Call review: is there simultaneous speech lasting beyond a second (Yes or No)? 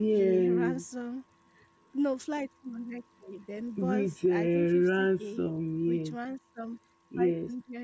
Yes